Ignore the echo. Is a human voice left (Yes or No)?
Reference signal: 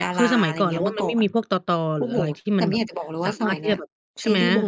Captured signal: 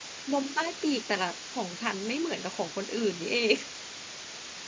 Yes